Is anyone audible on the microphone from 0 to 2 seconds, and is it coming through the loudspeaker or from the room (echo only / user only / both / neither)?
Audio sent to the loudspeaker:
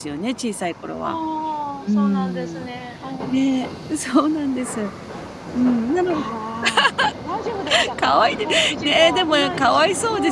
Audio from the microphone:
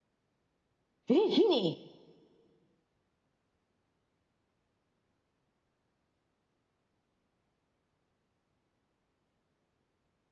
user only